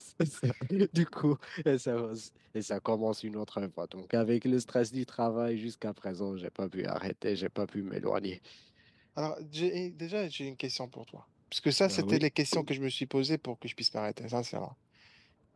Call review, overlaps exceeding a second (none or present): none